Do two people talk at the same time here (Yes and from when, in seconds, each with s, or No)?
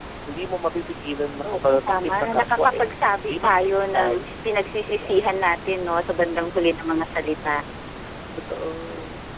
Yes, from 1.5 s